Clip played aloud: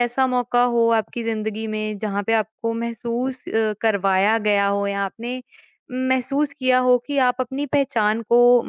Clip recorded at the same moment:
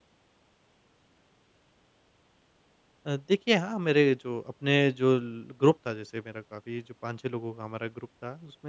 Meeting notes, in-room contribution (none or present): present